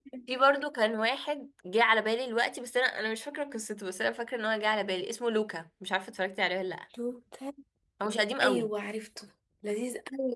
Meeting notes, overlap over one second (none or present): none